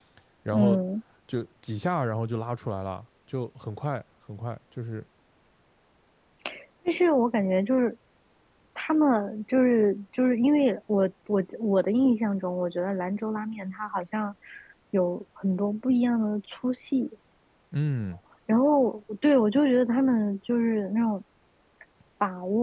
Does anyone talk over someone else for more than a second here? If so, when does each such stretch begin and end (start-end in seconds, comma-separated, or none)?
none